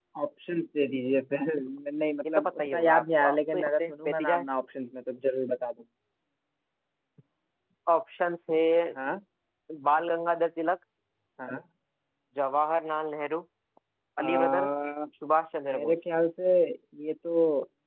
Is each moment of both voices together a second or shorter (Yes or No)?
No